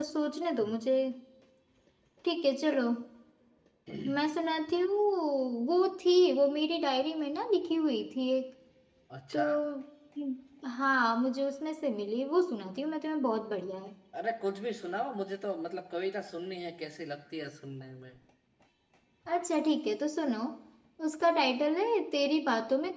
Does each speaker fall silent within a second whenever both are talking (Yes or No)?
Yes